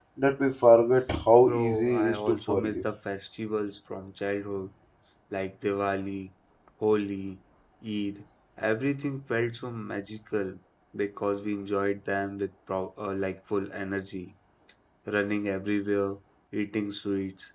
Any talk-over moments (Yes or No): Yes